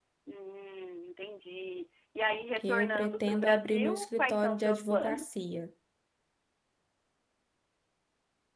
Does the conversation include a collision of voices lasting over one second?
Yes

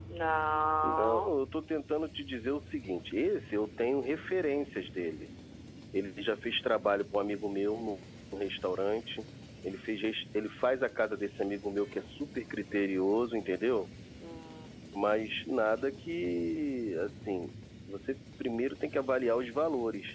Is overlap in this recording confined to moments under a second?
Yes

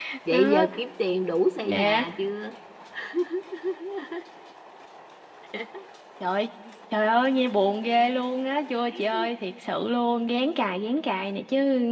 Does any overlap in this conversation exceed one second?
No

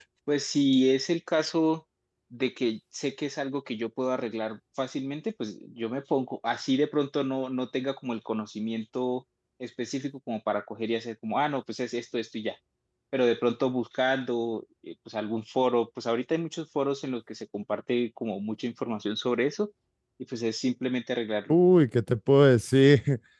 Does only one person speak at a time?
Yes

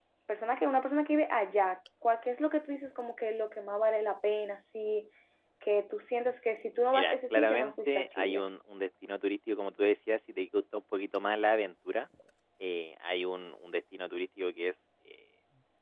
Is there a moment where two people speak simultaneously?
Yes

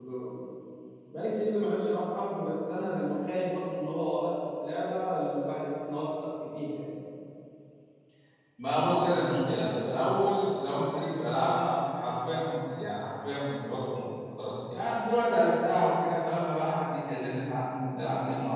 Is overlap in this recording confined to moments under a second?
Yes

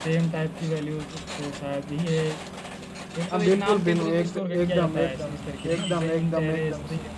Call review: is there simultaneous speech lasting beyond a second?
Yes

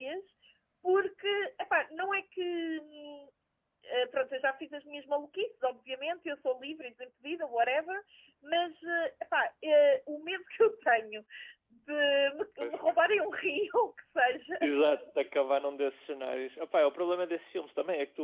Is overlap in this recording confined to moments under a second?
Yes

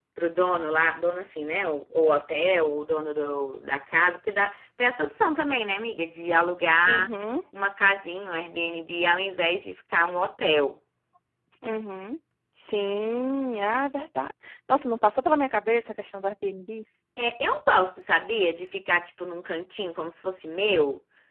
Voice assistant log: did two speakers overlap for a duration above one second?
No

